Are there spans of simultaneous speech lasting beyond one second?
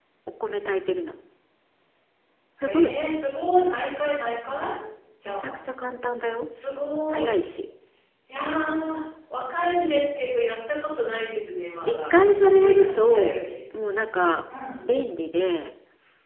Yes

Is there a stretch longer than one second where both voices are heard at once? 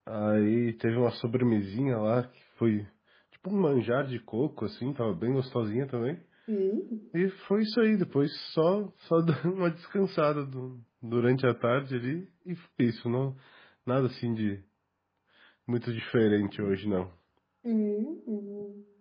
No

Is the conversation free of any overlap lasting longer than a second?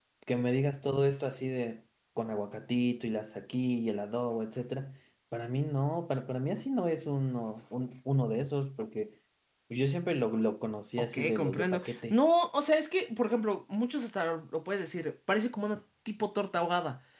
No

